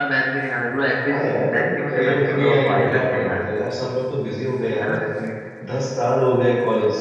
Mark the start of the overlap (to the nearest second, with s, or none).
2 s